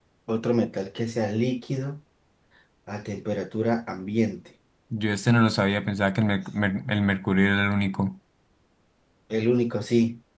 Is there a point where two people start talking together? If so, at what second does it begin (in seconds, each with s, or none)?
none